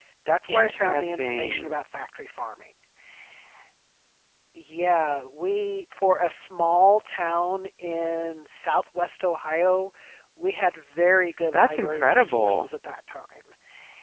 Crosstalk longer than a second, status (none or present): present